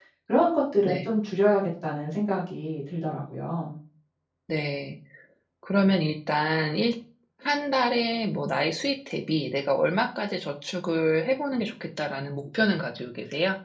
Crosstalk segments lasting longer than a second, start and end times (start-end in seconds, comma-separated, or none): none